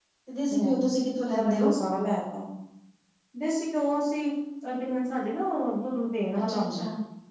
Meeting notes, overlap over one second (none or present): none